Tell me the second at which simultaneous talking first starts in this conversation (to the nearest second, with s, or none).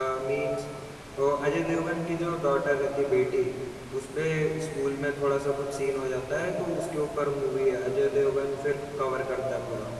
none